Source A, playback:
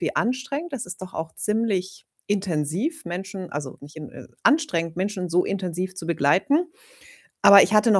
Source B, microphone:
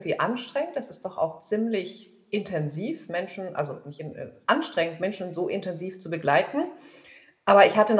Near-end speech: none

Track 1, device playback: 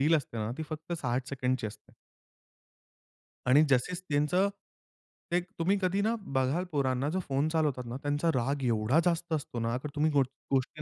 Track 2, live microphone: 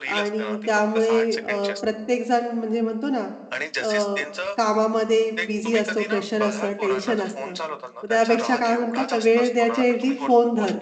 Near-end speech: present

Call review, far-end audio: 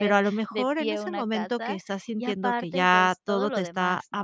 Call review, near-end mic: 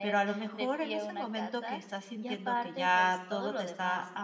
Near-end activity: none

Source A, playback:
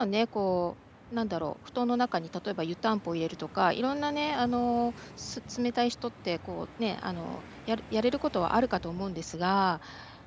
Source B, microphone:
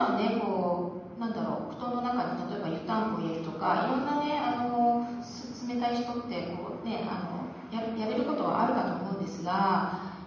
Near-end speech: none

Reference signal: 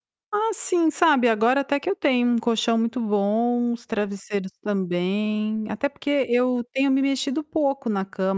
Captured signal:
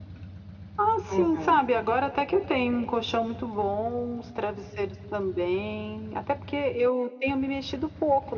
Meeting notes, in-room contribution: present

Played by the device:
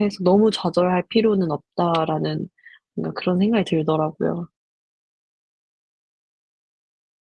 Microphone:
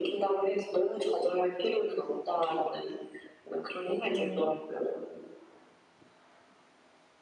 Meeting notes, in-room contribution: present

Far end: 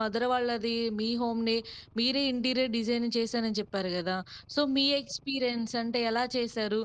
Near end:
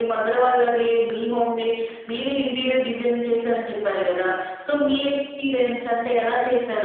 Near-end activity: none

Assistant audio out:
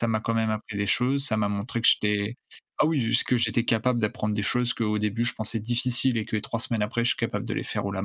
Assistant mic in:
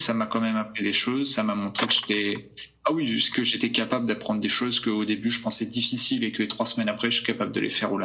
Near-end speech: none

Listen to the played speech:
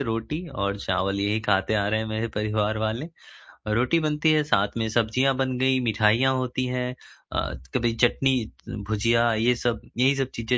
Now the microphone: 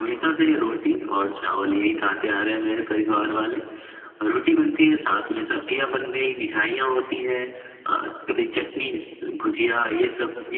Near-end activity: none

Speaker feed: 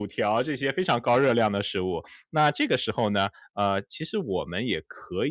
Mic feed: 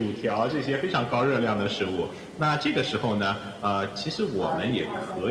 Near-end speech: present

